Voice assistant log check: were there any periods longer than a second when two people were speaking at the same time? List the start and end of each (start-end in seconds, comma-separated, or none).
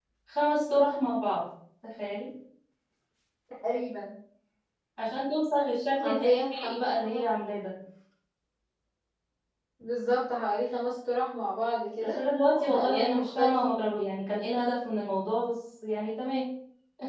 6.0-7.2, 12.7-14.0